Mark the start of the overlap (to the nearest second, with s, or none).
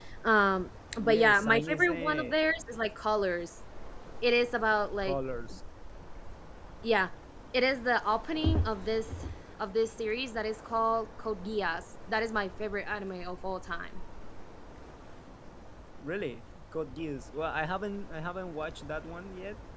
1 s